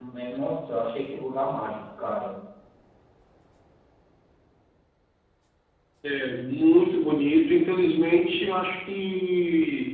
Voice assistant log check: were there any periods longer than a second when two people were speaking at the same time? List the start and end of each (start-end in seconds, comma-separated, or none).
none